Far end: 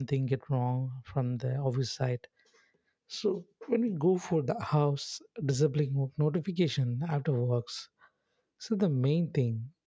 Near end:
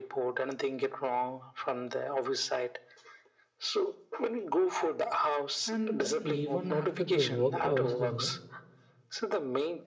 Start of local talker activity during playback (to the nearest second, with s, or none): 6 s